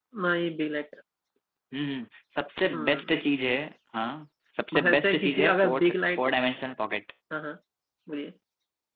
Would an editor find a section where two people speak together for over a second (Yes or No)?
Yes